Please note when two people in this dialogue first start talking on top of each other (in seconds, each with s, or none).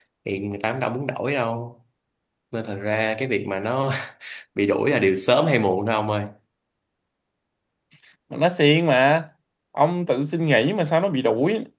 none